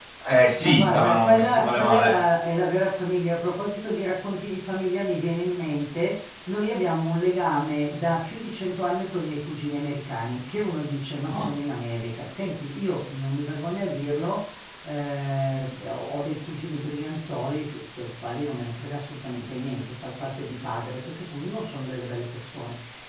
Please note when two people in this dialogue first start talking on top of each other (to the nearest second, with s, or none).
1 s